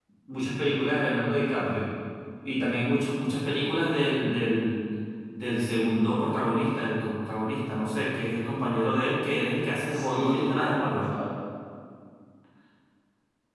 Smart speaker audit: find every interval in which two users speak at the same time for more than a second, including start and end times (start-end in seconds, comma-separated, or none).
9.9-11.1